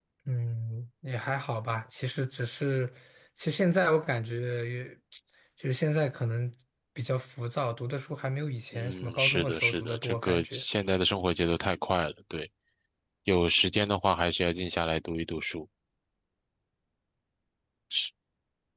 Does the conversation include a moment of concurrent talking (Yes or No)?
Yes